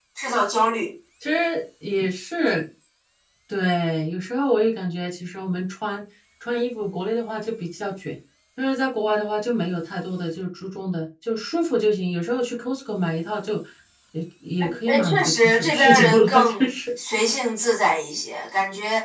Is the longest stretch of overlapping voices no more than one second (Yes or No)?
No